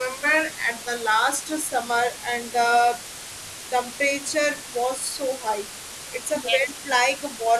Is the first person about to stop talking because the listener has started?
No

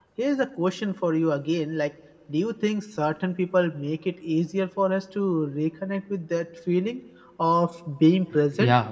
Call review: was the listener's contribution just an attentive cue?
No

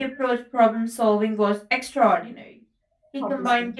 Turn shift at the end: No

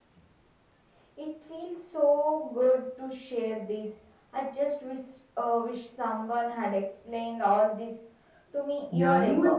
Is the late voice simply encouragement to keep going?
No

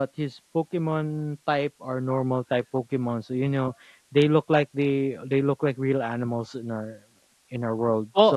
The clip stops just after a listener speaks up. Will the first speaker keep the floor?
No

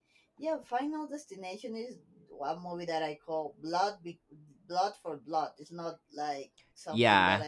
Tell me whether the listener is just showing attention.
Yes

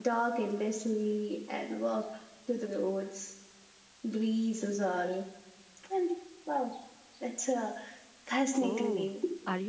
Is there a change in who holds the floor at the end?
Yes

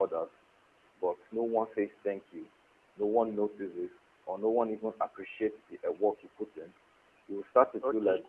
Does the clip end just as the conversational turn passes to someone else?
No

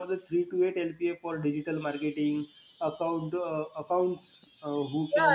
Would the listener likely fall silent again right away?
No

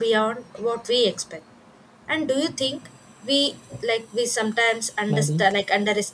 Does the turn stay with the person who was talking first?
Yes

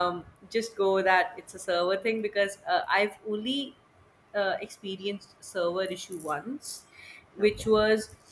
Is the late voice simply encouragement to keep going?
Yes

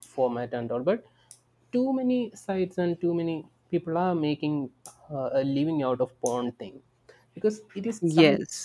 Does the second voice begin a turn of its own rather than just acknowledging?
No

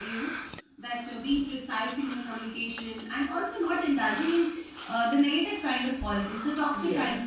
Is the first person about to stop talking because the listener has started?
No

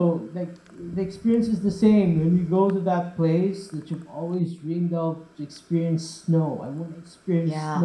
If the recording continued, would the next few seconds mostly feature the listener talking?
No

